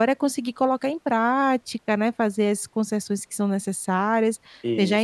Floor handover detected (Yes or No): No